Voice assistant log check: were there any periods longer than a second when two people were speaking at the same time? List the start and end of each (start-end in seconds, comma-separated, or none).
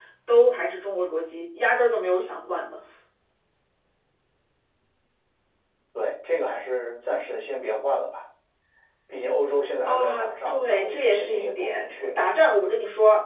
9.8-12.1